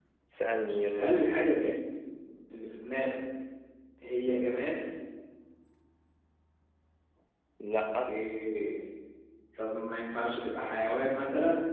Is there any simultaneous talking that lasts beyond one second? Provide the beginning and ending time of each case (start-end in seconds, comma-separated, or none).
0.5-1.8